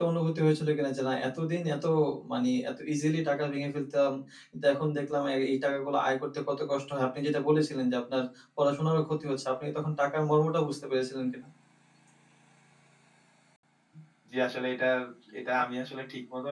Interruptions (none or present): none